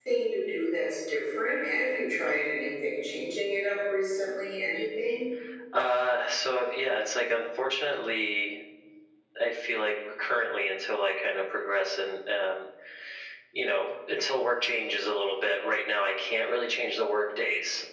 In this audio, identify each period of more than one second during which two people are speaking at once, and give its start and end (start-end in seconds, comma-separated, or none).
none